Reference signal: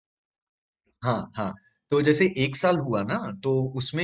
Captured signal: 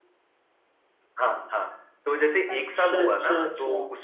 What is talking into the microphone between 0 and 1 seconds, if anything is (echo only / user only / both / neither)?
neither